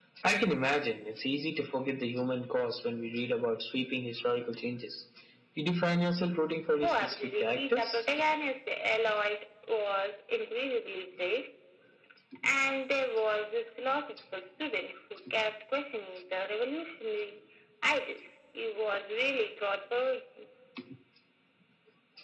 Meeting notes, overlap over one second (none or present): present